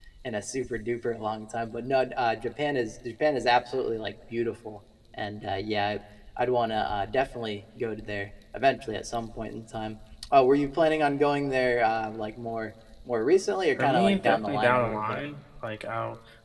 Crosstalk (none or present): present